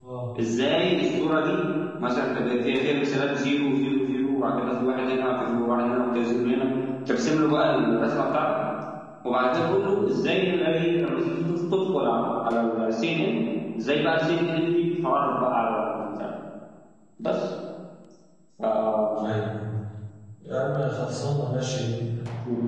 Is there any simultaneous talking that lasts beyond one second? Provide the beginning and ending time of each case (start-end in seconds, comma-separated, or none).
none